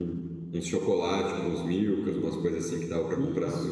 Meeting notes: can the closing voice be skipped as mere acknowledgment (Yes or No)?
No